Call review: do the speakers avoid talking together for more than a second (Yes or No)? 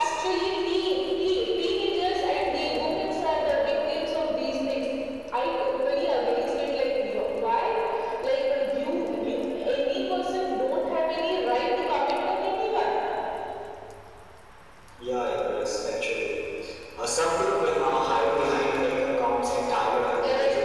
Yes